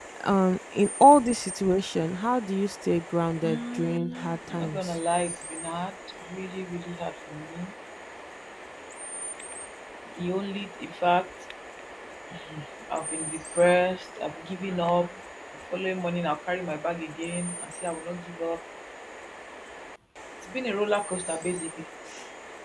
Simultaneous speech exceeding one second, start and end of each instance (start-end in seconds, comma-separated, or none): 3.4-4.9